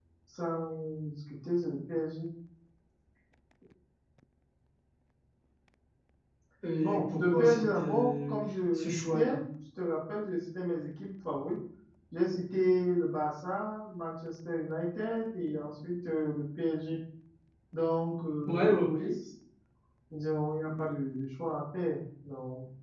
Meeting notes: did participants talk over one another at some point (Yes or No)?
Yes